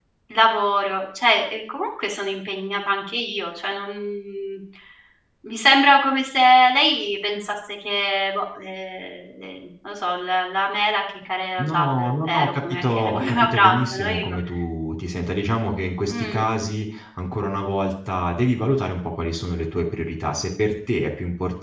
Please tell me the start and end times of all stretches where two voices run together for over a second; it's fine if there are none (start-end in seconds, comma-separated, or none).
11.6-14.2